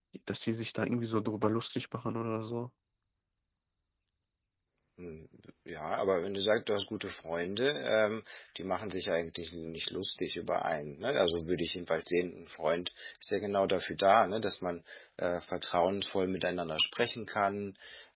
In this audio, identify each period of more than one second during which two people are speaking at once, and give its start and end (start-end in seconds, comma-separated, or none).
none